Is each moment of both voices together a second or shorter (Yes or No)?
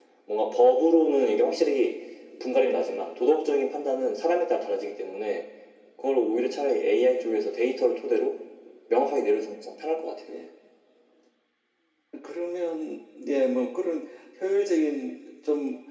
Yes